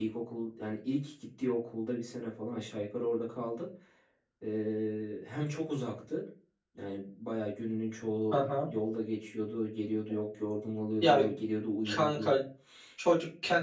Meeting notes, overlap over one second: none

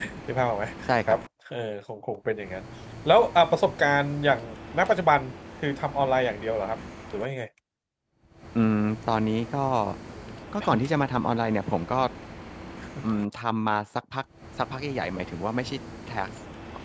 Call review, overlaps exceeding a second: none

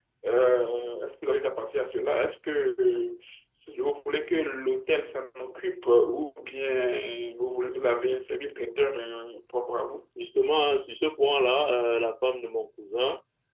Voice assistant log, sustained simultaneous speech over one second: none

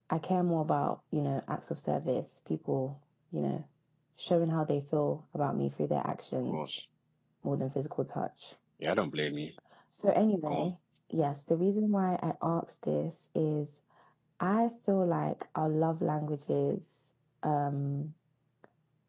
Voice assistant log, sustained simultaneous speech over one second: none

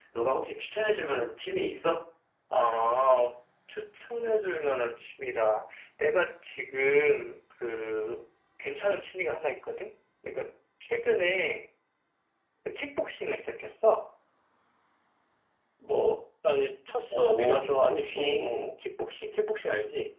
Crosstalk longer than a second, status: present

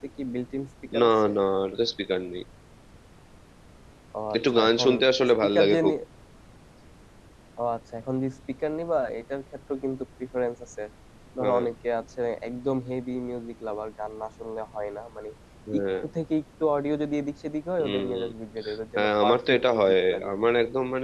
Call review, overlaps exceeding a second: present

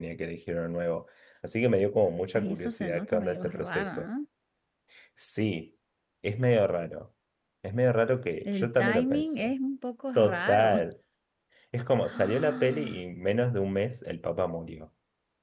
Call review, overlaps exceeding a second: present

